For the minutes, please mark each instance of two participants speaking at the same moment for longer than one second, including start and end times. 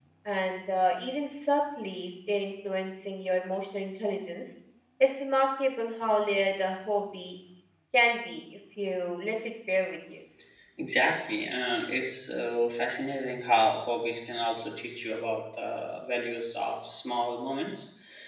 none

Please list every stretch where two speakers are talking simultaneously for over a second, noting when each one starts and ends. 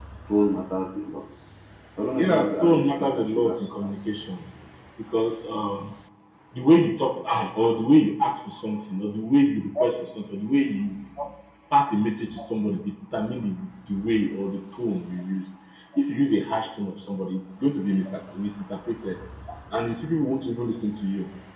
2.2-3.9

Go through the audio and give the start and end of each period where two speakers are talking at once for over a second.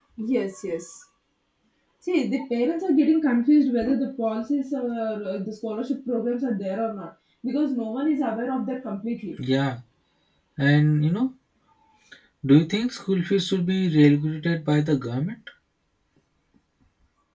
none

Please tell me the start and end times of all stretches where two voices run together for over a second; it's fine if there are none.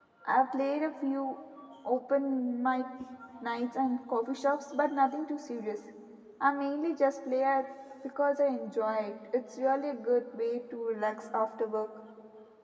none

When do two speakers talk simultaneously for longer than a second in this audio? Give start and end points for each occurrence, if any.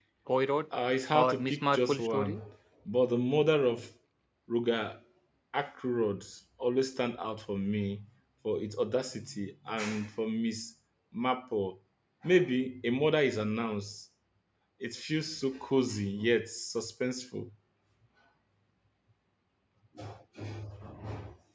1.1-2.4

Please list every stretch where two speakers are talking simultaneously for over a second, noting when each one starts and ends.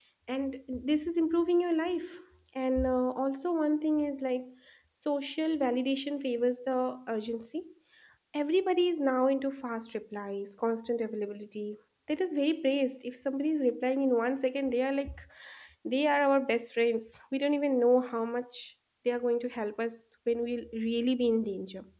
none

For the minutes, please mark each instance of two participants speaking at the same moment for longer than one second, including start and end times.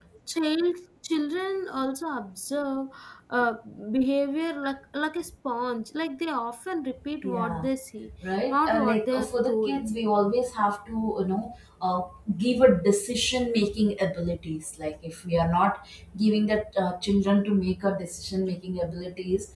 8.5-9.8

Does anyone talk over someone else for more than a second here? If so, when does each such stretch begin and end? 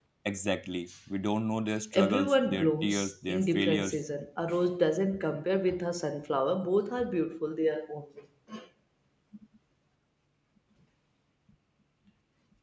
1.9-4.0

